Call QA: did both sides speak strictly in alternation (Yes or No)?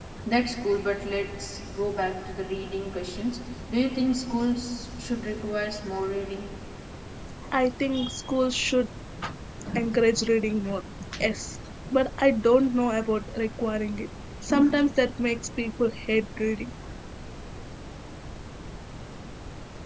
Yes